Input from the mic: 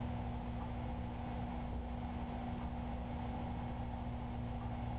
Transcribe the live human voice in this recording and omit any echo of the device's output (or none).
none